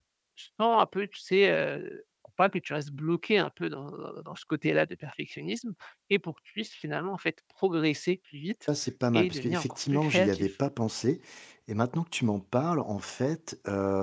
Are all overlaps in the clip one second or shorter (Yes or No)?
No